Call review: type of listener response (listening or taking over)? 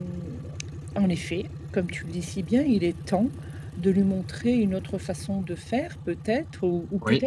listening